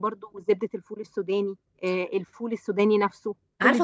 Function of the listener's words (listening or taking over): taking over